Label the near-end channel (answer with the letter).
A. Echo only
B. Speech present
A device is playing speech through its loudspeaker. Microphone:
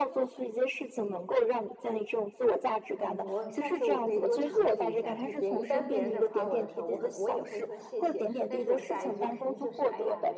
B